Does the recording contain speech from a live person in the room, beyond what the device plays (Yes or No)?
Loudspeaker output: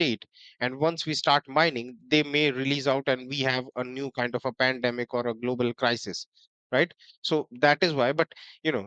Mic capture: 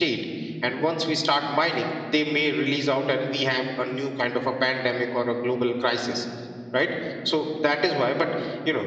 No